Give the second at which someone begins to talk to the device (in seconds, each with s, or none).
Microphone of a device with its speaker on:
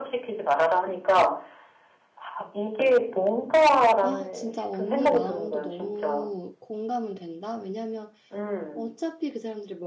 4.0 s